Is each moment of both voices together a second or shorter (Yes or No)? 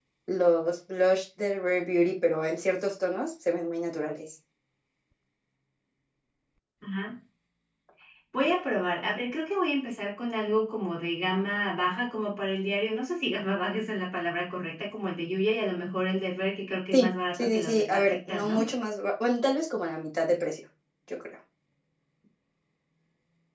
No